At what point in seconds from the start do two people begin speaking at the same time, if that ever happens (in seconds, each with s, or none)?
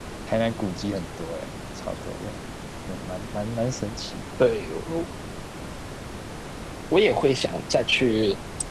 none